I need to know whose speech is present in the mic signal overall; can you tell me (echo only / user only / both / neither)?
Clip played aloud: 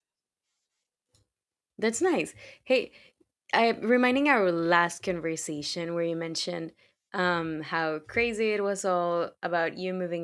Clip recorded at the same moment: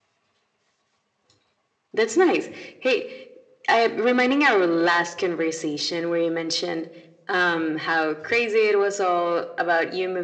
echo only